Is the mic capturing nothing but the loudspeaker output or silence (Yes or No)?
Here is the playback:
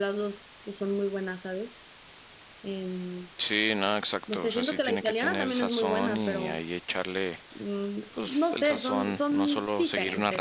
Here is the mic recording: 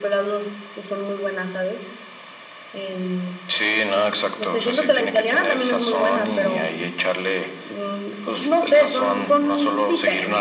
Yes